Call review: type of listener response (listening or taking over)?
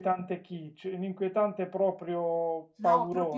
taking over